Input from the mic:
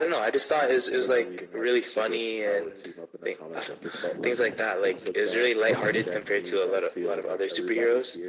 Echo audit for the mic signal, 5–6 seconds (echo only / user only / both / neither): both